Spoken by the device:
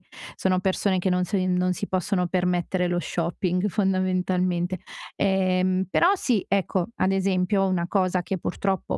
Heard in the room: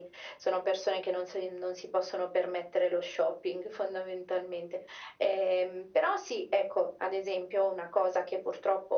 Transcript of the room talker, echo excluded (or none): none